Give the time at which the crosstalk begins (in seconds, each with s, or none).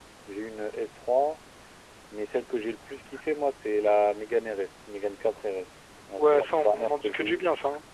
6.2 s